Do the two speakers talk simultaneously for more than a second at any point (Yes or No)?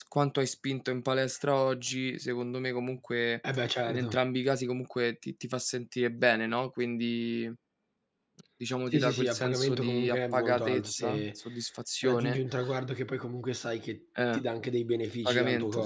Yes